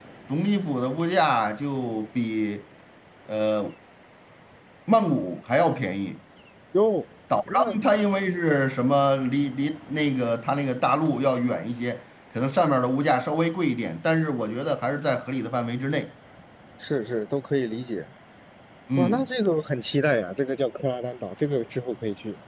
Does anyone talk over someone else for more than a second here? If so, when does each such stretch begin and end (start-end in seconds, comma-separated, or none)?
none